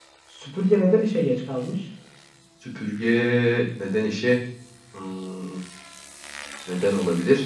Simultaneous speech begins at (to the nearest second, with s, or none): none